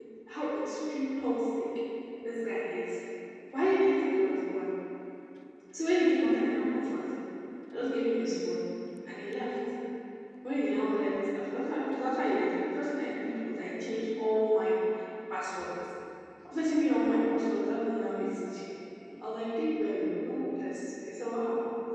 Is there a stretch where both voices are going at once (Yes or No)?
No